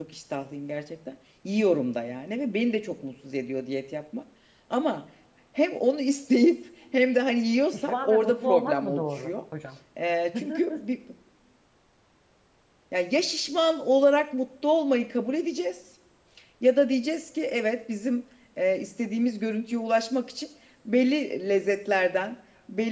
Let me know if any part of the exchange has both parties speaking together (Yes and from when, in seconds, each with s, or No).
Yes, from 7.7 s